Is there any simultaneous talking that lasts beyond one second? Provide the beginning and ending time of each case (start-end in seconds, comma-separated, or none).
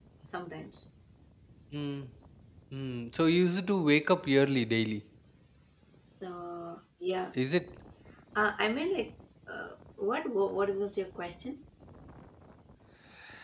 none